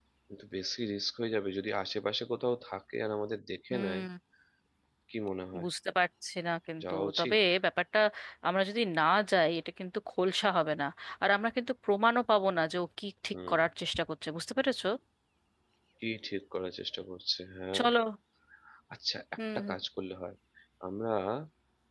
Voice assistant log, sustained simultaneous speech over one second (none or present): none